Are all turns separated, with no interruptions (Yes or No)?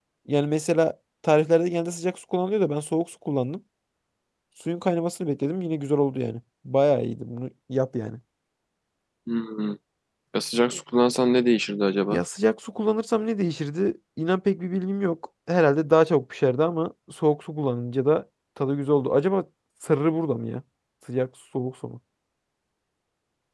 Yes